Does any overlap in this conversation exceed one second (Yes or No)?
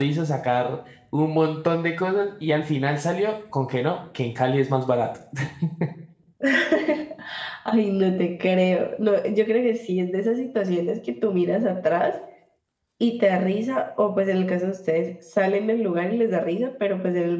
No